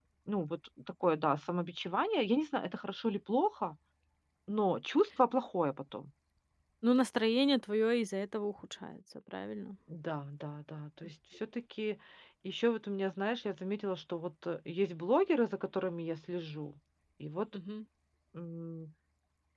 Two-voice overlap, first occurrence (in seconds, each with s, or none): none